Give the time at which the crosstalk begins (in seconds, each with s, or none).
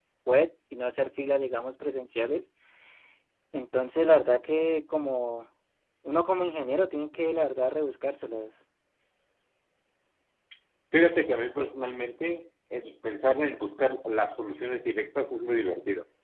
none